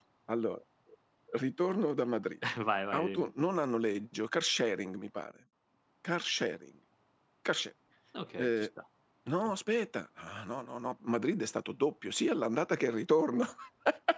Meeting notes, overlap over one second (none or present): none